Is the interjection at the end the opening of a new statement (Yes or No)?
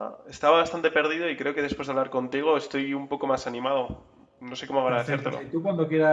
Yes